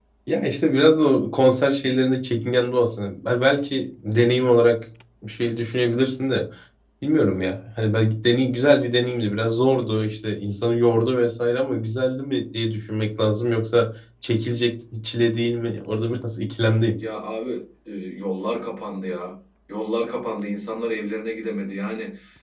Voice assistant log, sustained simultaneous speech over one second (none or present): none